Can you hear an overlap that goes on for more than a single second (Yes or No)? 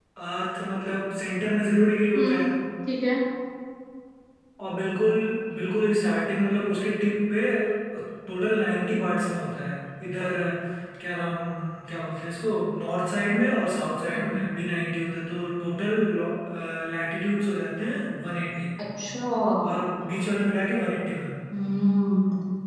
No